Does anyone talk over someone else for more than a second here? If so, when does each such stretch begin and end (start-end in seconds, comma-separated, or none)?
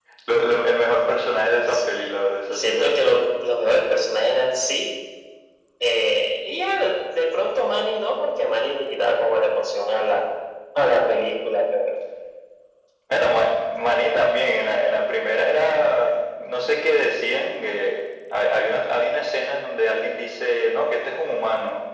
none